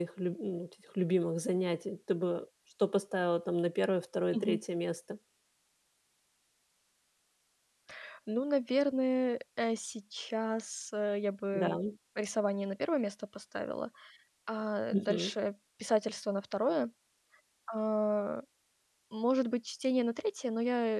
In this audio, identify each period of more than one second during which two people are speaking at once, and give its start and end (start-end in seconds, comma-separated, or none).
none